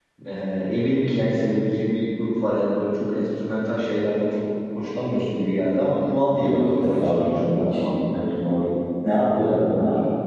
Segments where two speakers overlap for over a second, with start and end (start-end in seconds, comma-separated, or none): 6.4-7.9